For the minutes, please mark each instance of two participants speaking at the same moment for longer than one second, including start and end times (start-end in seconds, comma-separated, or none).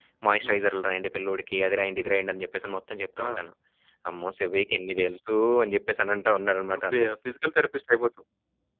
none